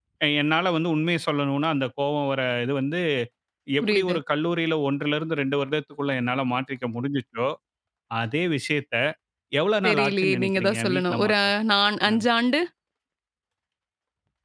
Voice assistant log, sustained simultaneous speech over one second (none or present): present